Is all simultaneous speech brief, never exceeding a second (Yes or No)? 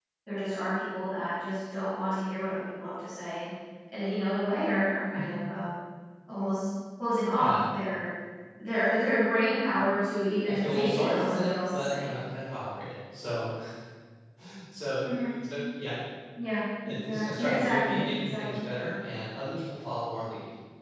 No